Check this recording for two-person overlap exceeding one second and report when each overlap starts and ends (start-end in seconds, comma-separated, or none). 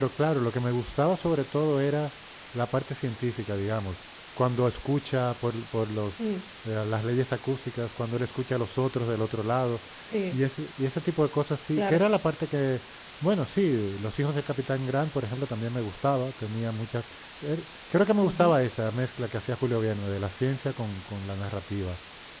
none